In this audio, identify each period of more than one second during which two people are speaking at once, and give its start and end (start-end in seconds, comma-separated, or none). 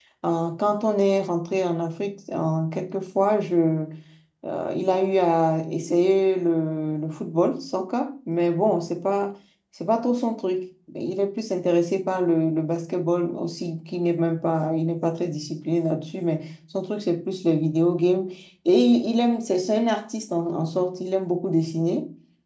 none